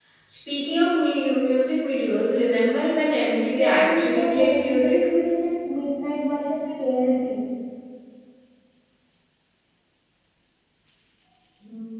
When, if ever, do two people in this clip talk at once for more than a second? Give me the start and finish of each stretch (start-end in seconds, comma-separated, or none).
3.5-5.0